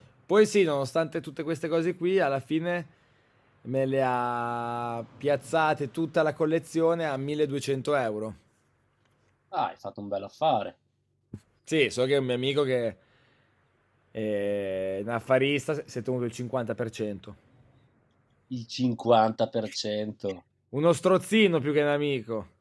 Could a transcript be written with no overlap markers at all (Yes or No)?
Yes